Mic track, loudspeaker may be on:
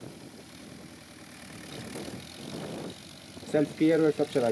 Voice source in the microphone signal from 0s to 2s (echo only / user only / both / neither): neither